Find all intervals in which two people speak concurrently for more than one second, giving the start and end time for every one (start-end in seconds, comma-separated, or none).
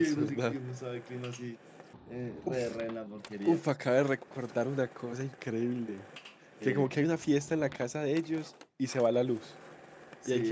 none